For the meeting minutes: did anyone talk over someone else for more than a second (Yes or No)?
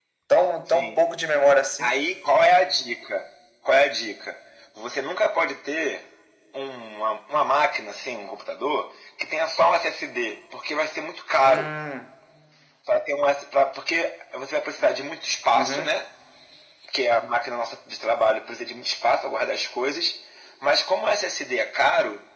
No